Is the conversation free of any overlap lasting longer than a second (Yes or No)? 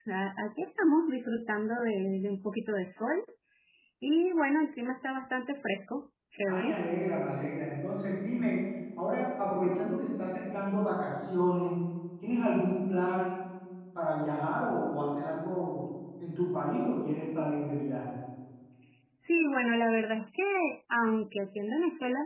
Yes